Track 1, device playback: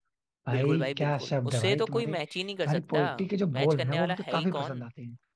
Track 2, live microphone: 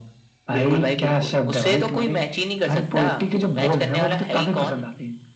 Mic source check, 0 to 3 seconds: echo only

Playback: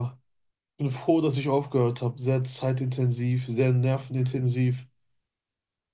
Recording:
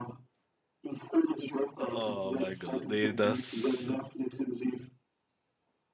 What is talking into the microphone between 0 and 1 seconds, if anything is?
echo only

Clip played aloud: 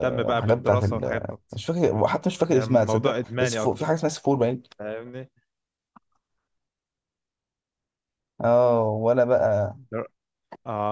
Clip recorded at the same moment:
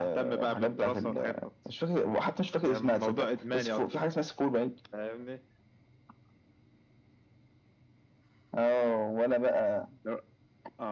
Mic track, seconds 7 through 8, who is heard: neither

